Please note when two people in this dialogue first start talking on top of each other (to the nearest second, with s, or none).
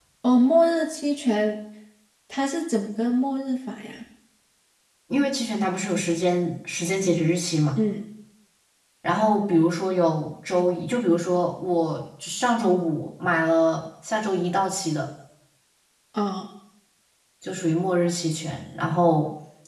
none